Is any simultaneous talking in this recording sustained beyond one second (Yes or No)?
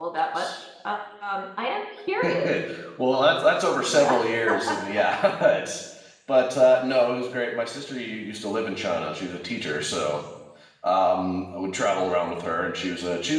No